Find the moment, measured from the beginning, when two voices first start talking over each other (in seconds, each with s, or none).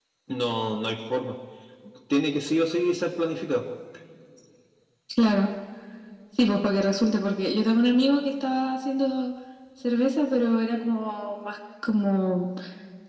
none